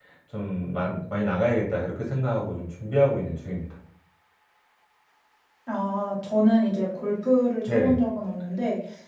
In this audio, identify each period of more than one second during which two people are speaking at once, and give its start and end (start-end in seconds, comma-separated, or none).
none